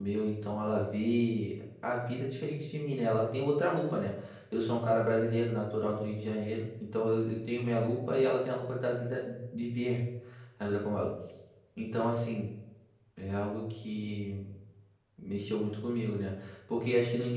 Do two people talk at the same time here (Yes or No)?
No